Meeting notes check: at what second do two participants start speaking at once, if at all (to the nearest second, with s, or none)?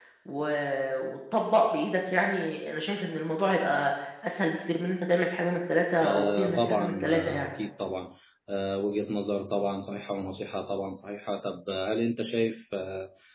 6 s